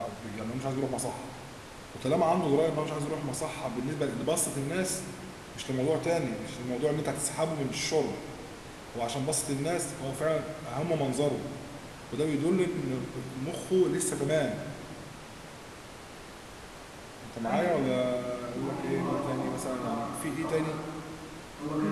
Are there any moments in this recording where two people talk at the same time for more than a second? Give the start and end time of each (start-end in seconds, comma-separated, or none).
18.6-19.9